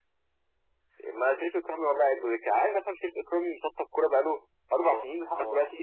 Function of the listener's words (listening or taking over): taking over